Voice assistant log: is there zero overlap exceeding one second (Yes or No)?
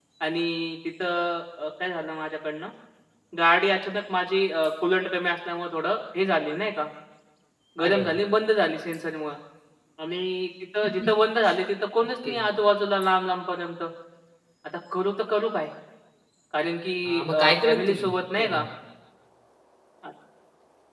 No